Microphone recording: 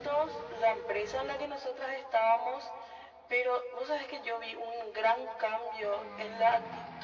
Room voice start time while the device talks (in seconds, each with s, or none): none